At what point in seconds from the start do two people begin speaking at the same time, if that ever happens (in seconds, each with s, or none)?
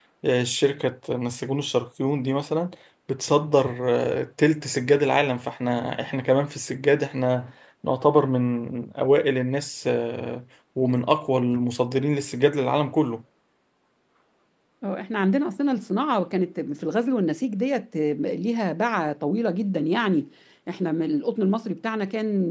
none